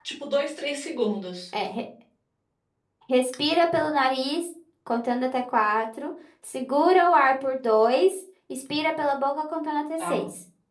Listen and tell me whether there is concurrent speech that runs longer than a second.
No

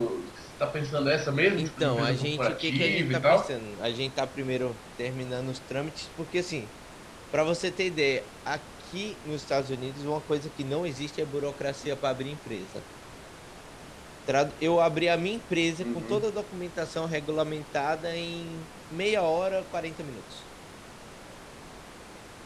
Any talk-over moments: Yes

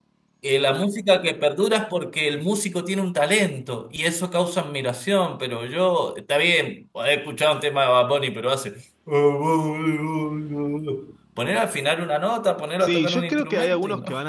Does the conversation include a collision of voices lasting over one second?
Yes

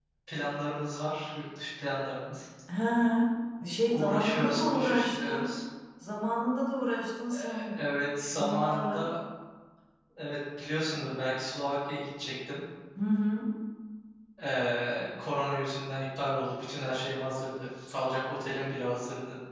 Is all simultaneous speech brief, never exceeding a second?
No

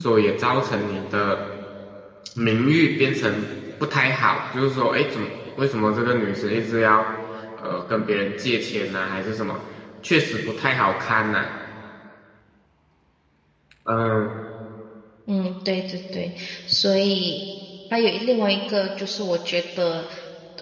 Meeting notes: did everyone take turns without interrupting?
Yes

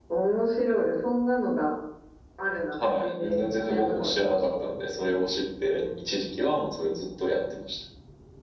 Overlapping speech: Yes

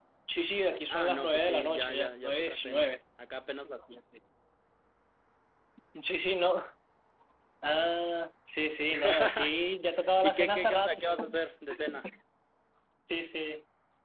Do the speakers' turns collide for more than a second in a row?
Yes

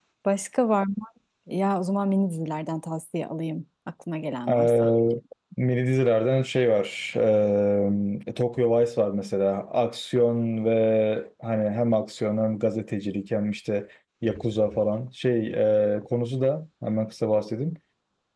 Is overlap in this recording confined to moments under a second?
Yes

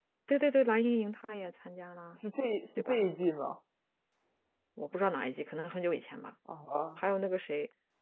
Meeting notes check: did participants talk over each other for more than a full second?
No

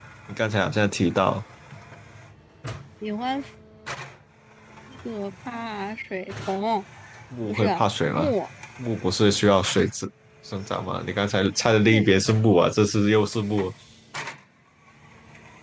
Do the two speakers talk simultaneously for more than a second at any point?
No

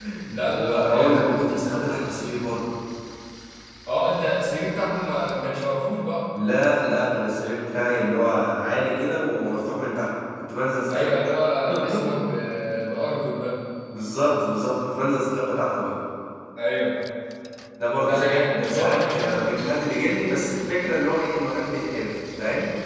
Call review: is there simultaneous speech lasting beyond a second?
Yes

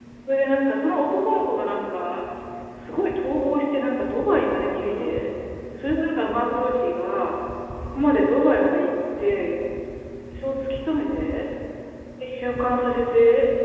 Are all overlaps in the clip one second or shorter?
Yes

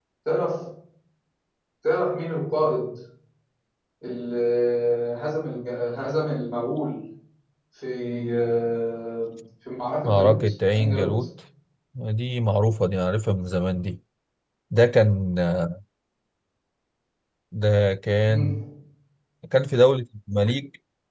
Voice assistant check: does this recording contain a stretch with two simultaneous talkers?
Yes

